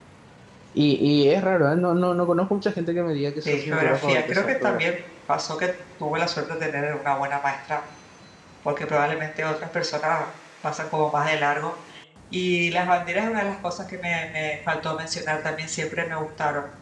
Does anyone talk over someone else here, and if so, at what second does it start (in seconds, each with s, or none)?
3.5 s